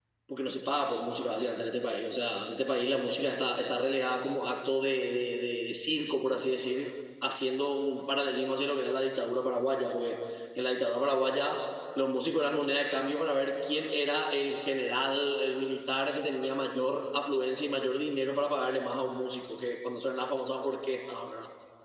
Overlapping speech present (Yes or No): No